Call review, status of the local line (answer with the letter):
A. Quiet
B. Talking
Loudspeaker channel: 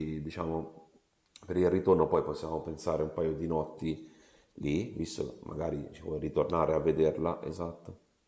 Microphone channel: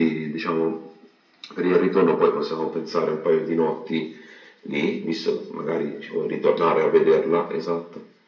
A